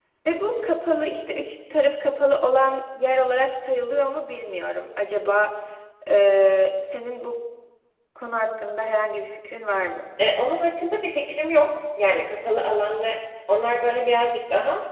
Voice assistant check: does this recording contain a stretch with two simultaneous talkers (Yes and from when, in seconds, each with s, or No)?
No